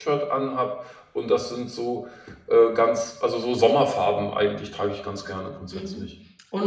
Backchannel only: No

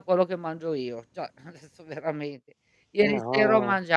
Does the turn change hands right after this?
No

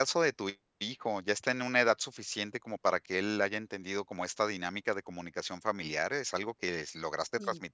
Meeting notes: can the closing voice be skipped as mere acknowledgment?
Yes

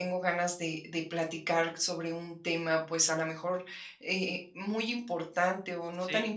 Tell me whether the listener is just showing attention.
Yes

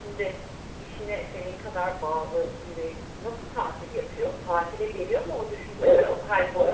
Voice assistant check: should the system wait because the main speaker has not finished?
No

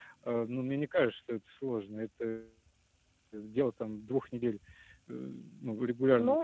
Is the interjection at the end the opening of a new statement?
Yes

